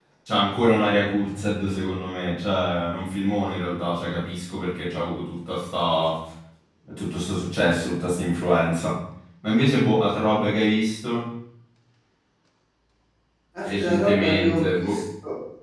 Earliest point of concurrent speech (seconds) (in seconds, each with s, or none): 13.7 s